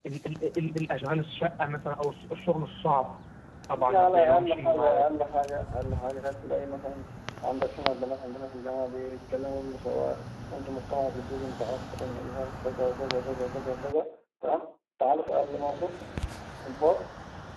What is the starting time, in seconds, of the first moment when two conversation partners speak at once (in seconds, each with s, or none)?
3.8 s